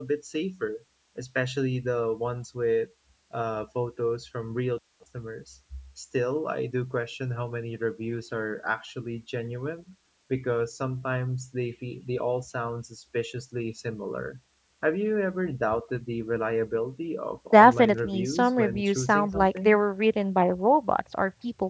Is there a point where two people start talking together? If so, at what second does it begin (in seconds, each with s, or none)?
17.5 s